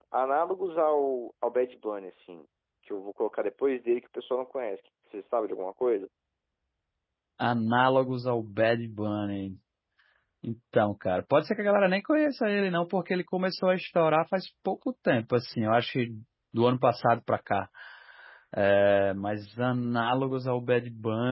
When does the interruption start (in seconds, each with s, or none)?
none